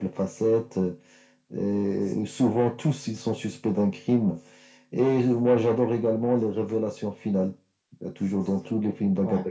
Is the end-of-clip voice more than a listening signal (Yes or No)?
No